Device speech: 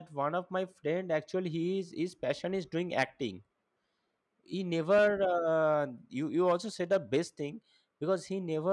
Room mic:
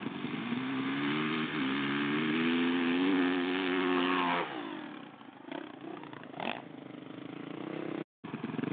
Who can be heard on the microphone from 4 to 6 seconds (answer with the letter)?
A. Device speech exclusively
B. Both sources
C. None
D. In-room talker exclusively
C